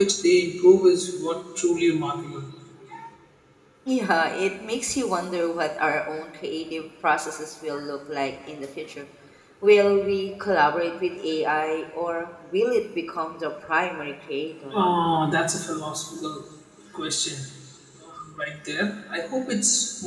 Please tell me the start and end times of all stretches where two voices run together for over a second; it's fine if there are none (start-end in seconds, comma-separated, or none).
none